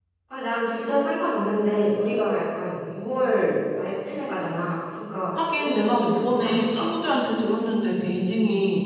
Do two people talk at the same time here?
Yes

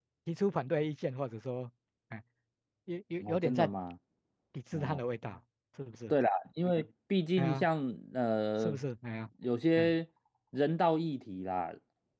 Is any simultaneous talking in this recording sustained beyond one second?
No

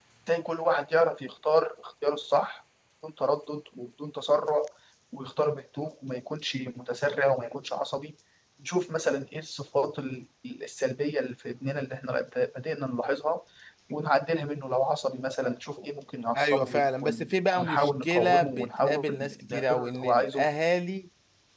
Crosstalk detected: Yes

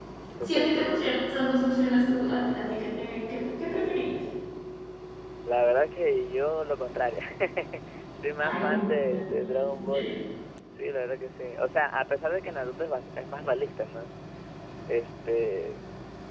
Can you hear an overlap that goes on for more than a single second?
Yes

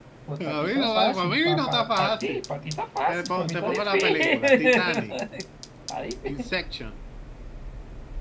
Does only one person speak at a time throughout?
No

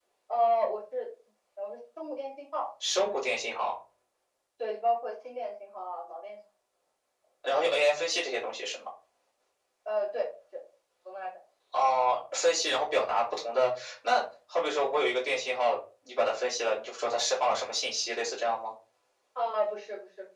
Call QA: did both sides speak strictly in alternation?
Yes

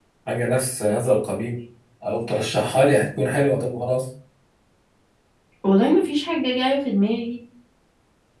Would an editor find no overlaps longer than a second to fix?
Yes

